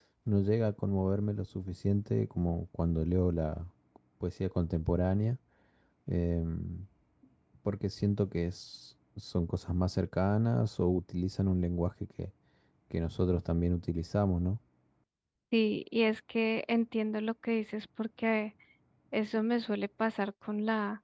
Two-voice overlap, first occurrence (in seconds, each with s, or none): none